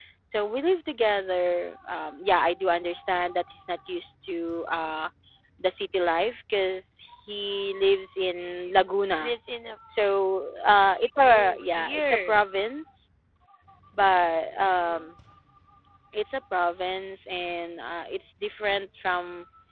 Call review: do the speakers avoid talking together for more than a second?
No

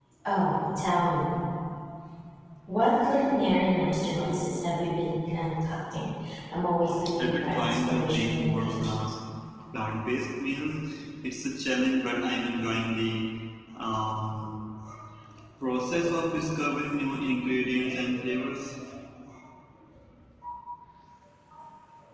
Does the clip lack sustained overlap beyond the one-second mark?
No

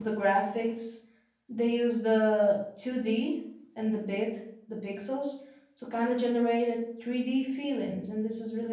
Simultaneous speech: No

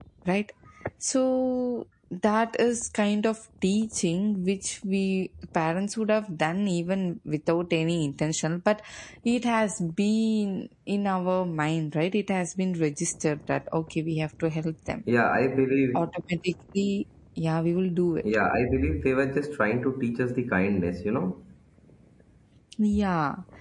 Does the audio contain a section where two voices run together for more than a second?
No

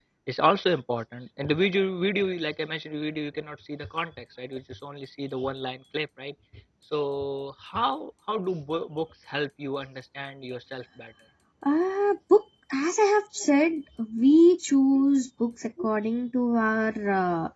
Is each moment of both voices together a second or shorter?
Yes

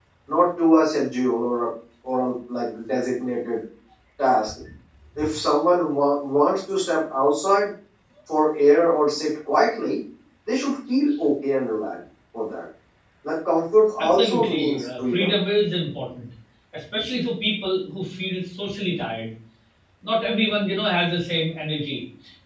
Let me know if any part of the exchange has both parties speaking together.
Yes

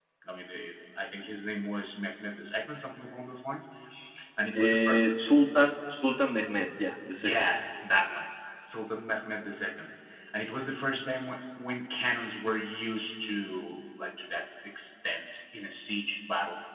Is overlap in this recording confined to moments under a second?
Yes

